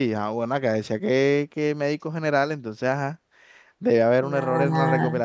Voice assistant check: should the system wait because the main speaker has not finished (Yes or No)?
Yes